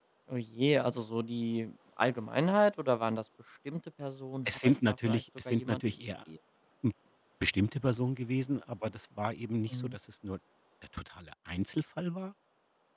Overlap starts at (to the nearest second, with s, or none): 4 s